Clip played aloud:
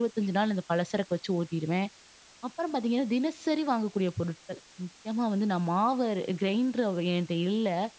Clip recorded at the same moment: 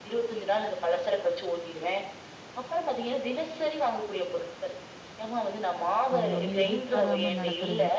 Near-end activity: present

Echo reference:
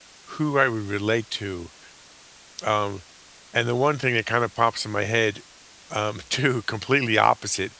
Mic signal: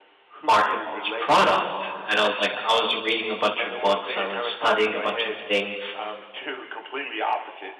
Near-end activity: present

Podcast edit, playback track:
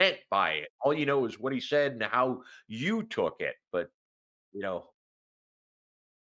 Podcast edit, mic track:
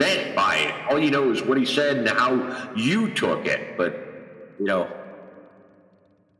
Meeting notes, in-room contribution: none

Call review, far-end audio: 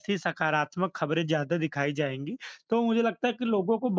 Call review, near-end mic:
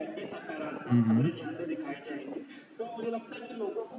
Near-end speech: present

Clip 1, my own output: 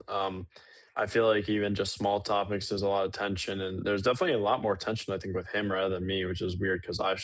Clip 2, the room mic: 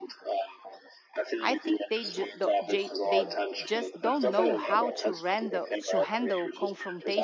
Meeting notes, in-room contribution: present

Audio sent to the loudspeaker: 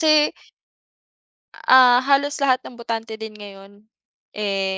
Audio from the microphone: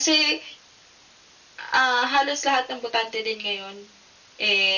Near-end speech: none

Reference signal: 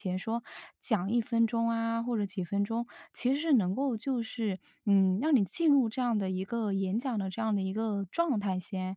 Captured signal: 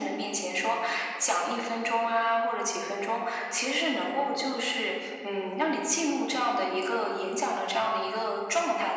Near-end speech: none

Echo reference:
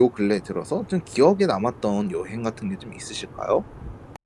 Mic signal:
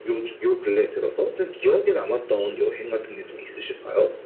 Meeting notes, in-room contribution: none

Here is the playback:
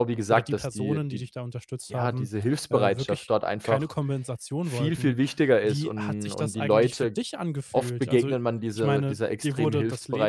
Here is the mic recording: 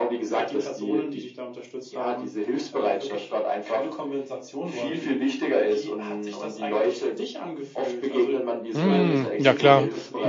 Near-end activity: present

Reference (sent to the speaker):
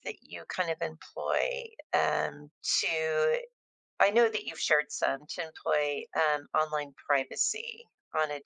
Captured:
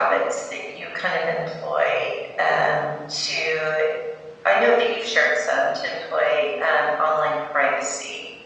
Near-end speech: none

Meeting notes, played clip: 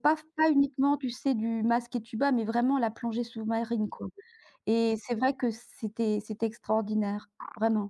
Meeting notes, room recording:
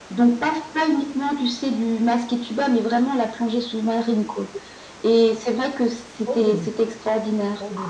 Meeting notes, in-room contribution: present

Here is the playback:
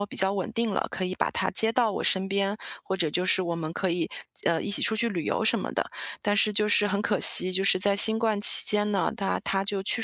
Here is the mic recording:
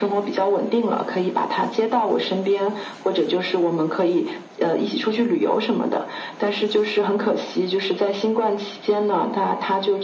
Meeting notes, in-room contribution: none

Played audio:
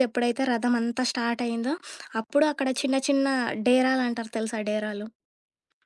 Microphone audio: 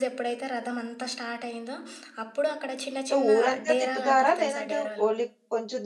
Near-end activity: present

